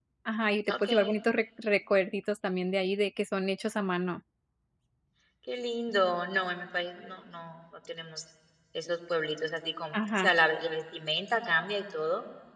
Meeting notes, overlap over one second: none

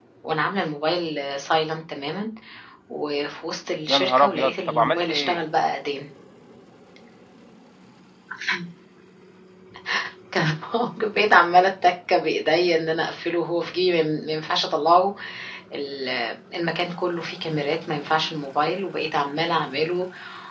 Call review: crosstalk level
present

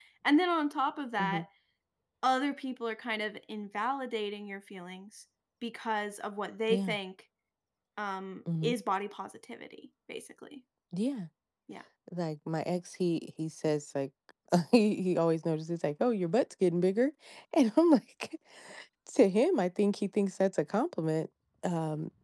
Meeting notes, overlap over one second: none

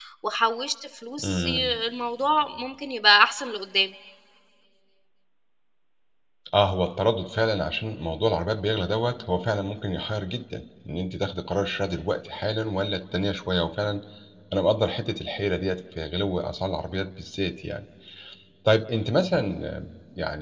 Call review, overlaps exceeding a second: none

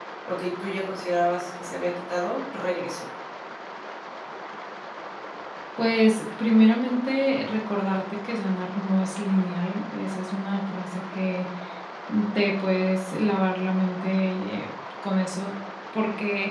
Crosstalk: none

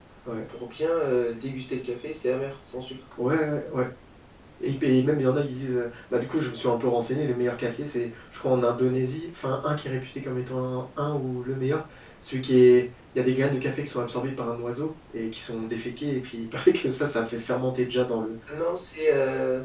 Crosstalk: none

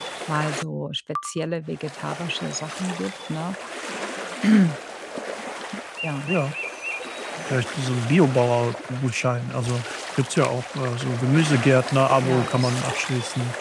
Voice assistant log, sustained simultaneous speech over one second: none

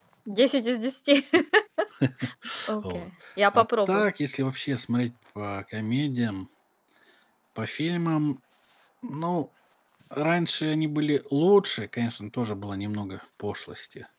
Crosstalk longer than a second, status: none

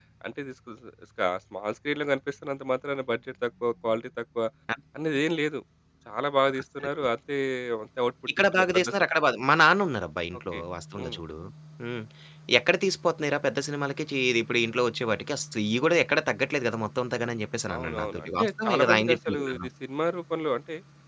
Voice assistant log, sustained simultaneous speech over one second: present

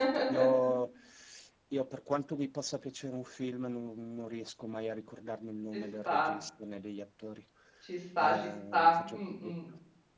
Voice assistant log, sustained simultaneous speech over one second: present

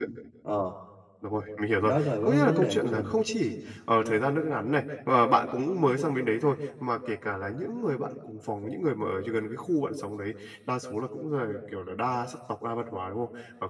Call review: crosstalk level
present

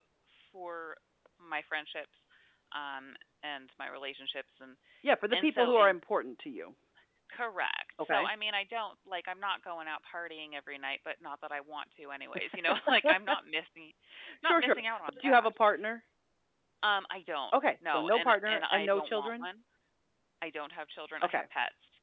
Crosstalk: present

